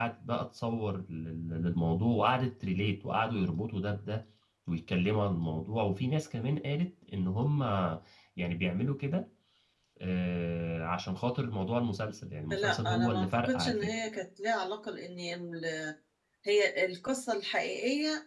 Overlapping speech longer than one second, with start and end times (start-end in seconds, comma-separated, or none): 12.5-14.0